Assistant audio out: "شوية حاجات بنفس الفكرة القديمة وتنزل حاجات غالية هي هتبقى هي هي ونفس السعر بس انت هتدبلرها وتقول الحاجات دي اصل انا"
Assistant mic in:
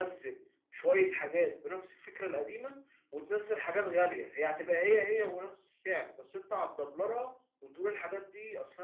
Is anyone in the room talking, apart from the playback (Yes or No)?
No